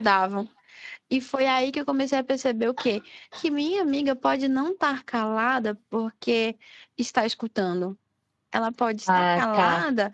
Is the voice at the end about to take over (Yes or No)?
No